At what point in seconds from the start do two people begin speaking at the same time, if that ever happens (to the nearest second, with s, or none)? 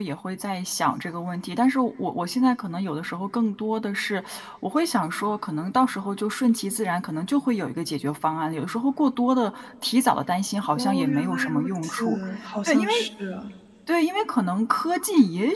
11 s